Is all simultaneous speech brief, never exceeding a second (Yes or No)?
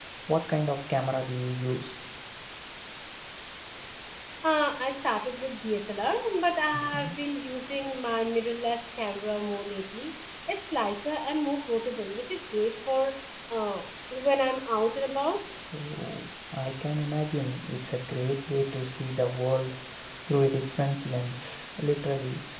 Yes